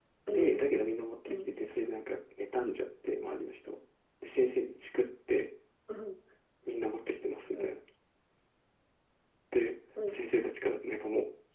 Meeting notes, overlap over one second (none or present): none